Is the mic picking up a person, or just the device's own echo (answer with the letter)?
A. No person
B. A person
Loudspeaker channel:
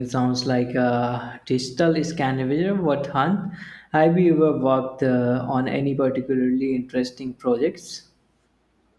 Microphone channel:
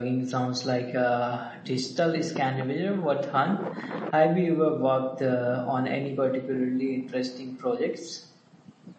A